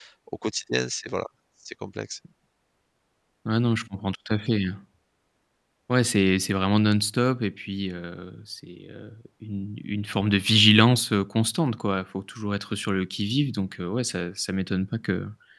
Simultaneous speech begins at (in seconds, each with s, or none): none